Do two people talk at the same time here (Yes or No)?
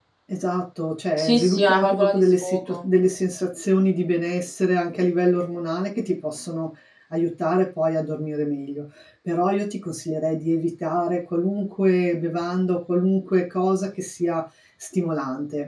Yes